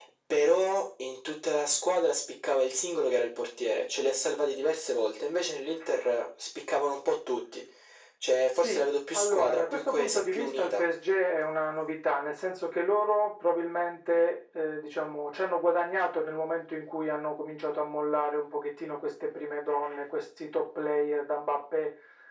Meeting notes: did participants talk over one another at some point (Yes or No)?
Yes